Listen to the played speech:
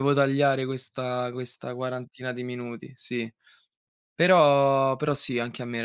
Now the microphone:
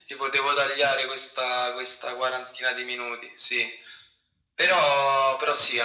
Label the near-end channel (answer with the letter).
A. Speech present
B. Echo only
B